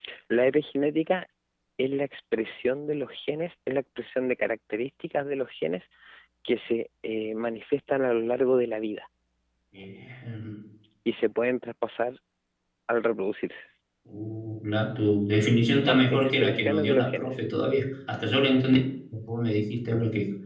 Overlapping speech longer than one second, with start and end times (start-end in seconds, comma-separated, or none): 15.8-17.4